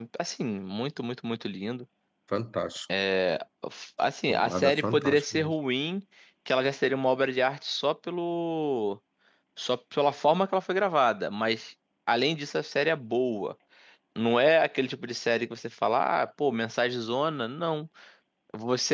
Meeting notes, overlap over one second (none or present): present